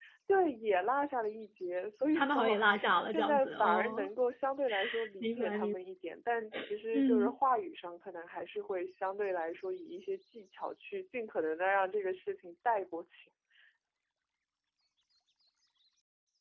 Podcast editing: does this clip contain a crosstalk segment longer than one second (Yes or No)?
Yes